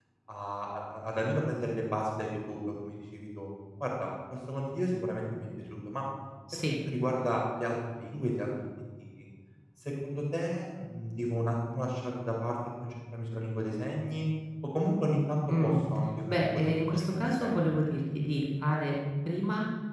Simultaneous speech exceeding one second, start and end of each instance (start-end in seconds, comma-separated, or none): 16.3-17.6